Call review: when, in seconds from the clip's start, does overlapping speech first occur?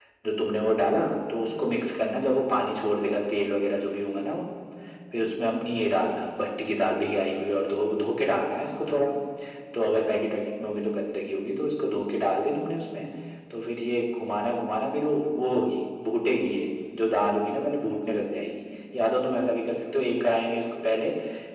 none

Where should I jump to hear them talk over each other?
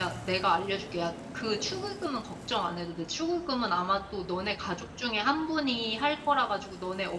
none

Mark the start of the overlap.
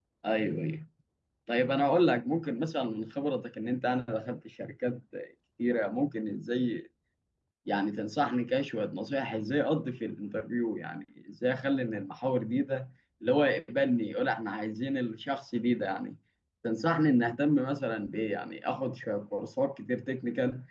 none

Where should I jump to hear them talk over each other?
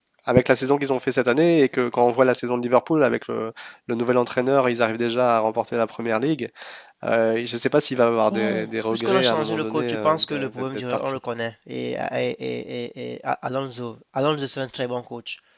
8.3 s

